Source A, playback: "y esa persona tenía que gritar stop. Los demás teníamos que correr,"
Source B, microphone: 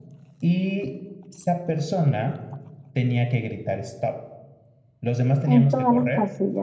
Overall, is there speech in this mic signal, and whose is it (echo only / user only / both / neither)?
both